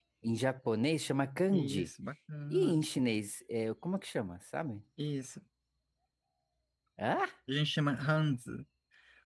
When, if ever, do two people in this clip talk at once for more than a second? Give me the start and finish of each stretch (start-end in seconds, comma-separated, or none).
none